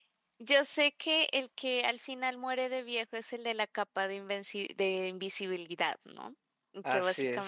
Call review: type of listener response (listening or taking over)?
listening